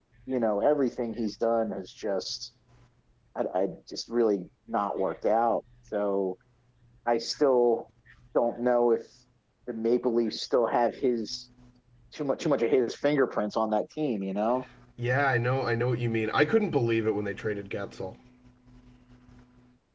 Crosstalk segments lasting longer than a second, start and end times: none

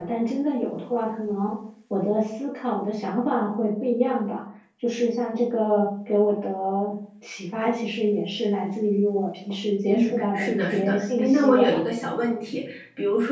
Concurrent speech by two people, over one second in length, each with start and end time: 9.9-11.7

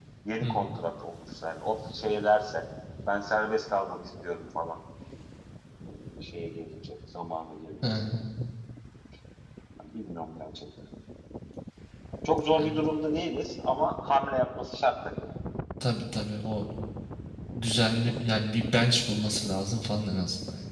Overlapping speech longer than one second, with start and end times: none

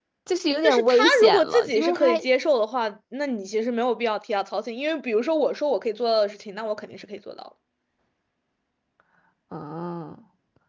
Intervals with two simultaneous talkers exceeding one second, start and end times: 0.6-2.2

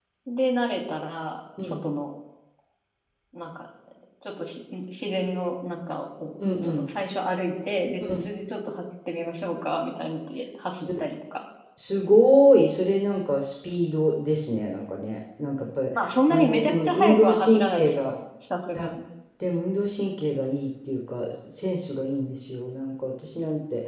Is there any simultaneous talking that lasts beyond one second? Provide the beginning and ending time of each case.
16.3-18.1

